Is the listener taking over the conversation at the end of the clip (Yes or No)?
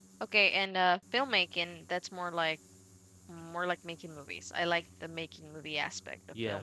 Yes